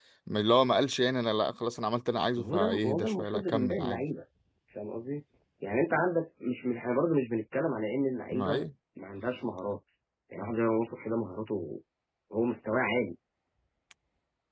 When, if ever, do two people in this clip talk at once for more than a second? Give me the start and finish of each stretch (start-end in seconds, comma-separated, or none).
2.4-4.0